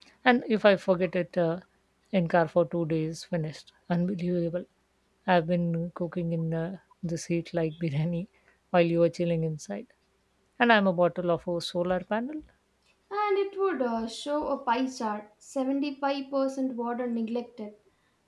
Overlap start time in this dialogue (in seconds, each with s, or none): none